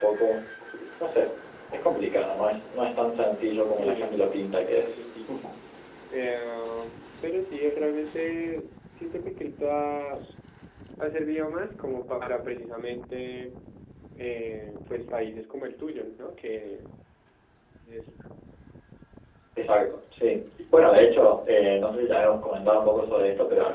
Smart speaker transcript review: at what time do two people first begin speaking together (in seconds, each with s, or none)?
3.8 s